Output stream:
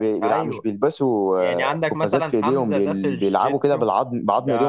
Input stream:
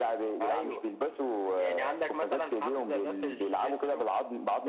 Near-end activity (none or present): none